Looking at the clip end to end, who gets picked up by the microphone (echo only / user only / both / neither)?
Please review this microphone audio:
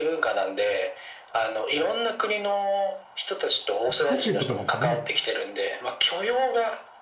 both